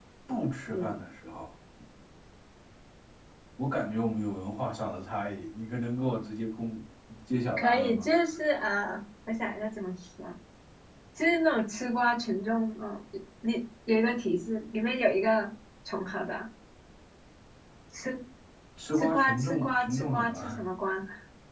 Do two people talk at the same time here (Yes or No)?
Yes